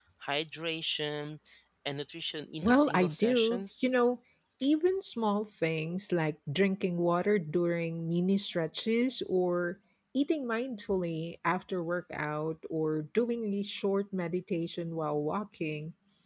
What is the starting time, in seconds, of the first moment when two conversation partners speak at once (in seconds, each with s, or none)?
2.6 s